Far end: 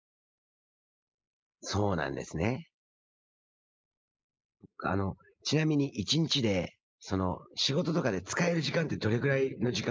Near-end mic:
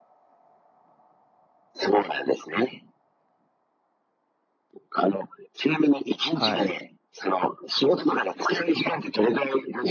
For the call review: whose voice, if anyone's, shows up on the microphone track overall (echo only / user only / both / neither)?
both